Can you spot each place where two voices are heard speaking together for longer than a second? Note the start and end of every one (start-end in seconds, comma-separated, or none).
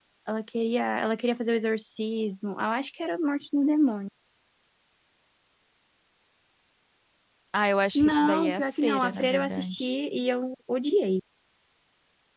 8.0-9.9